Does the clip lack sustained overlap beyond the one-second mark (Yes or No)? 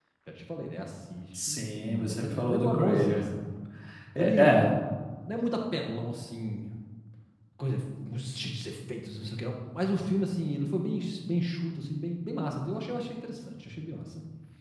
No